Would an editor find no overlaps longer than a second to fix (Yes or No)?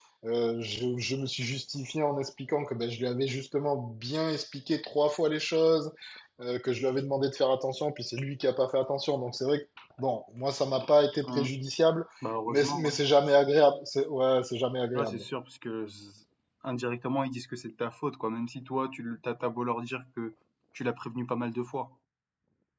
Yes